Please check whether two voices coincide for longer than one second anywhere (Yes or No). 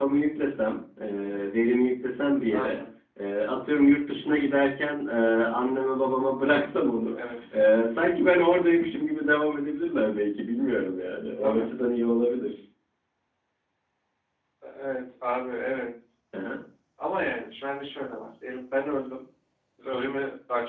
No